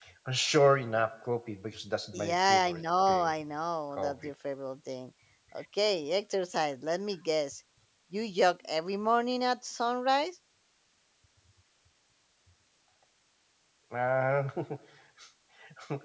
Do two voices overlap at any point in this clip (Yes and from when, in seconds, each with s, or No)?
Yes, from 2.1 s